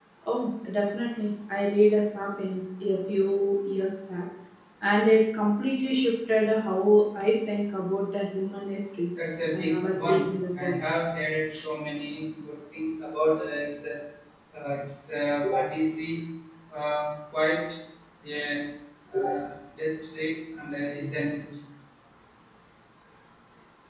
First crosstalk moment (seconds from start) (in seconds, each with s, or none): 9.5 s